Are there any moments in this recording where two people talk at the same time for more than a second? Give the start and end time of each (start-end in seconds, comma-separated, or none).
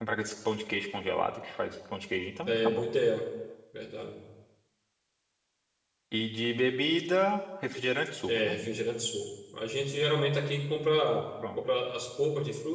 none